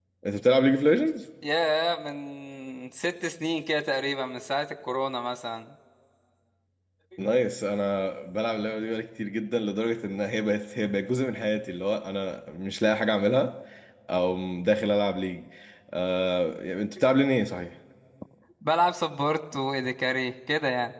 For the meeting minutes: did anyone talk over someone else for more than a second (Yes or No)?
No